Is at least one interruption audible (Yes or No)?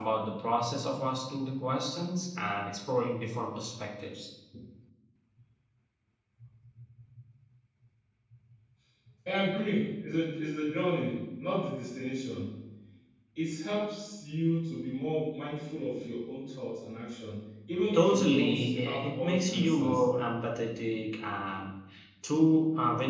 Yes